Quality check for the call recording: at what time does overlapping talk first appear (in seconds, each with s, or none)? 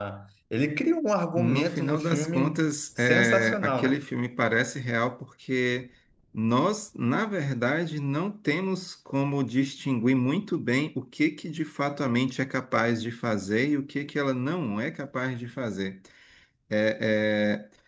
1.4 s